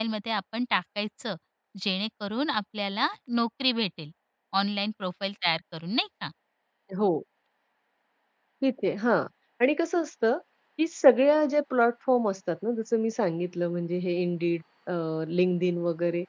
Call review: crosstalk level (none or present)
none